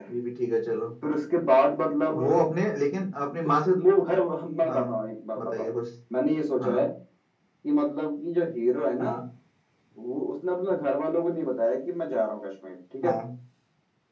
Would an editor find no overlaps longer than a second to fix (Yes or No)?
Yes